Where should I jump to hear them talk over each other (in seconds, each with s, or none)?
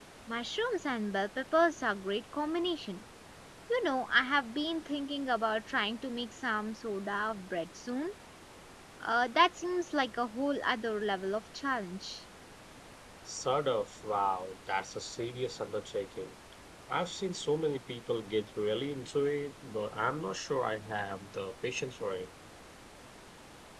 none